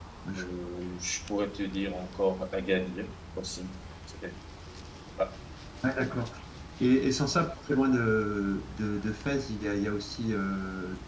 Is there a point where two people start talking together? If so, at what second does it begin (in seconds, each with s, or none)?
none